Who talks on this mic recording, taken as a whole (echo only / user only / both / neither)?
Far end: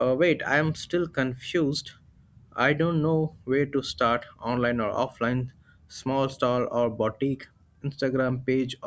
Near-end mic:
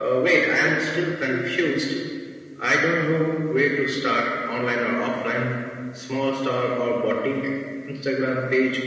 echo only